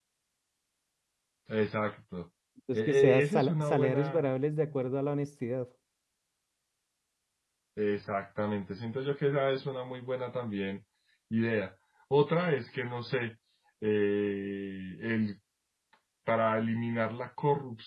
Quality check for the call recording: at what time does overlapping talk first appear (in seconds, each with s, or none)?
2.7 s